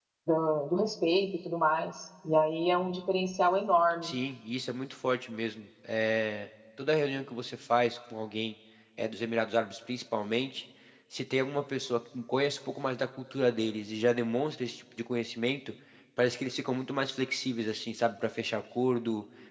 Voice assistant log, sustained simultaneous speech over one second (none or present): none